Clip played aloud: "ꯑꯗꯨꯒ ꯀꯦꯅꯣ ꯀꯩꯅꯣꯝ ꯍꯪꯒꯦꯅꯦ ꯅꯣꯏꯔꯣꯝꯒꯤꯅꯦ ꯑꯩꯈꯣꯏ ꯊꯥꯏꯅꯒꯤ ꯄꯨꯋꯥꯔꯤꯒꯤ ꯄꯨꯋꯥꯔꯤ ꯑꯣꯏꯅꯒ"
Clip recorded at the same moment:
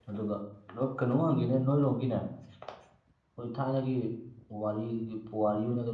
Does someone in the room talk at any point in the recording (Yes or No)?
No